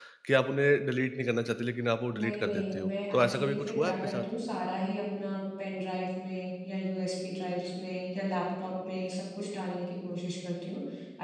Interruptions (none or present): present